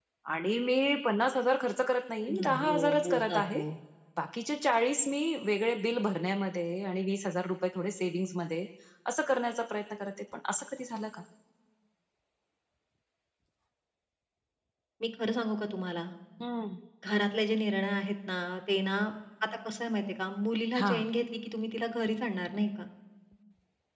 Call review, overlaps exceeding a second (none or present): present